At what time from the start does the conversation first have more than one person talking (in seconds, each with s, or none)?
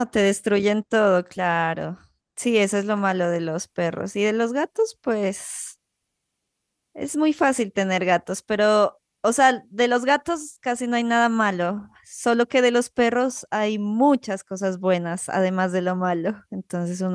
none